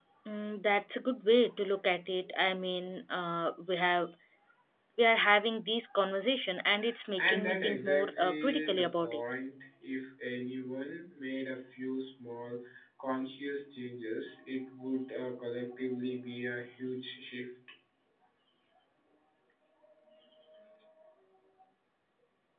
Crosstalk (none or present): present